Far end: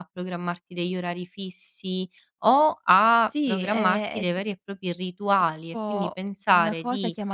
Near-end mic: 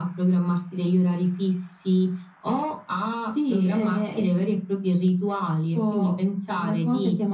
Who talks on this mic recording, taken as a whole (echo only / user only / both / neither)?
echo only